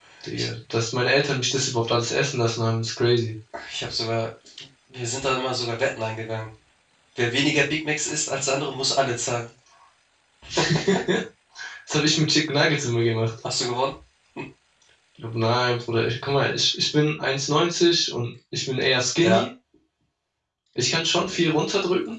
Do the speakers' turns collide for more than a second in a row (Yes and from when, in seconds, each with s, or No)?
No